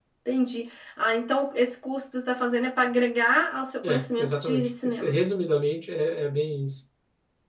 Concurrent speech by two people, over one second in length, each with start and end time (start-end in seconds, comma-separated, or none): 3.8-5.2